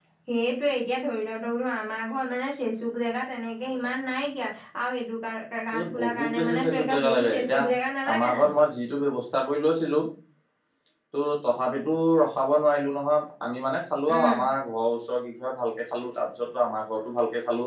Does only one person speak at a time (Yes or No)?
No